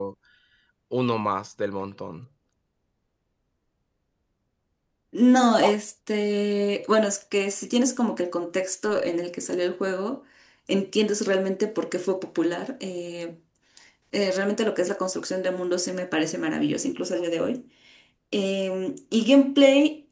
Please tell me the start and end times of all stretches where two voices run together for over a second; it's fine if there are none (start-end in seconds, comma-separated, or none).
none